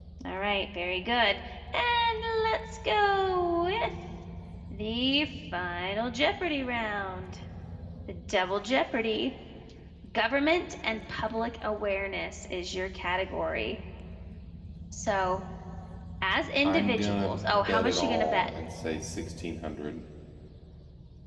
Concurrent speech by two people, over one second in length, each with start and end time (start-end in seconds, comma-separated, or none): 16.6-18.5